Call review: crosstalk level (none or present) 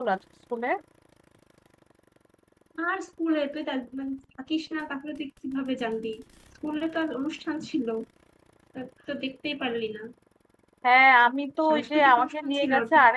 present